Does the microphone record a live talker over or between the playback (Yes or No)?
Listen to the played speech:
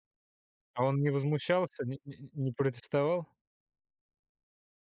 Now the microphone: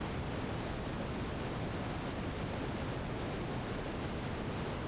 No